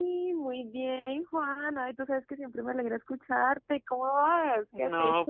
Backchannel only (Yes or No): No